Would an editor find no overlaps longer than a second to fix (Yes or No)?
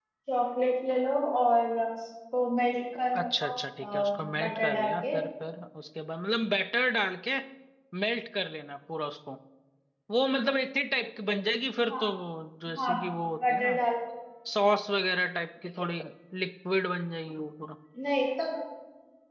No